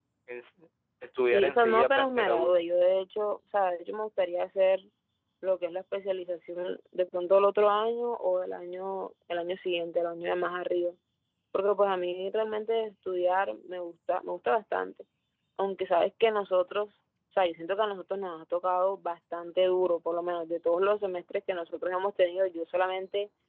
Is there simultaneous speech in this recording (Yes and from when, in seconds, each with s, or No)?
Yes, from 1.3 s